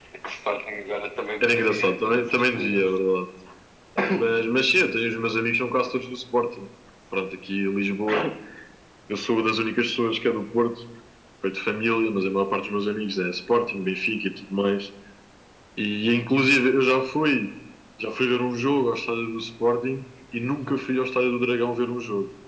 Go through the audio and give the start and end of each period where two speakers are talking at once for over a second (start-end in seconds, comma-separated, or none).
1.4-2.9